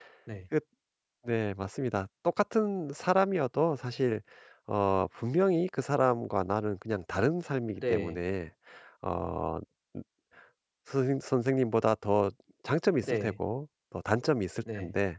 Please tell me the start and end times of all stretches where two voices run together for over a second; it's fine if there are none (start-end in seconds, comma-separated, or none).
none